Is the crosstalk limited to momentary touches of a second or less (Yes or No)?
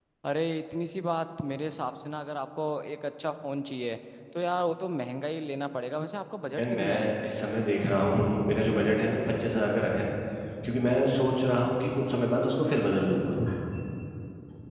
Yes